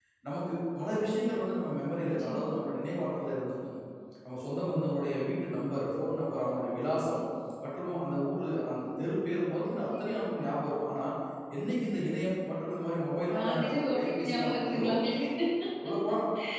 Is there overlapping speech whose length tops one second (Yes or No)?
Yes